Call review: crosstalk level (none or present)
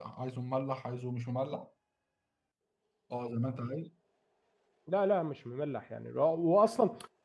none